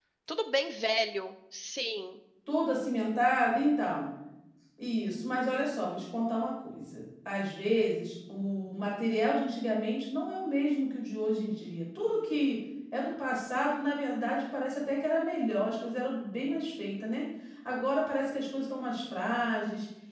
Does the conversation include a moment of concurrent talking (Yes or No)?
No